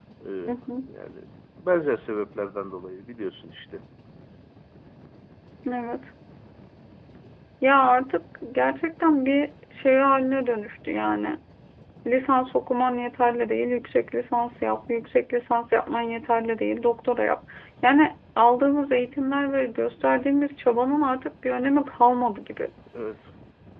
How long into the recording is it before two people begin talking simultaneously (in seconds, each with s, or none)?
none